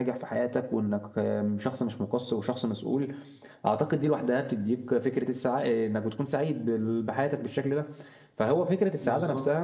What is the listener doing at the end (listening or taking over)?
listening